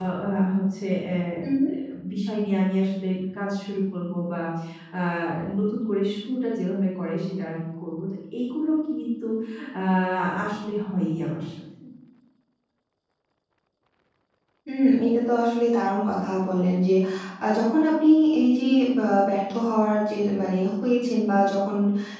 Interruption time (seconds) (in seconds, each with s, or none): none